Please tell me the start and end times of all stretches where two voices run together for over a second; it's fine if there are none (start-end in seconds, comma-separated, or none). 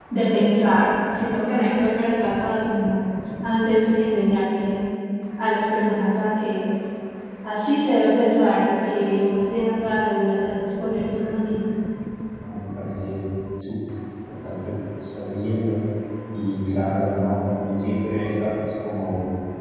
none